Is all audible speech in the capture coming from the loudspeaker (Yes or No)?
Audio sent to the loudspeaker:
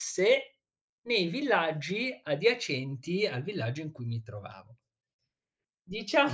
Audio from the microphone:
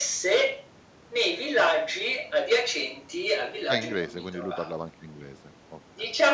No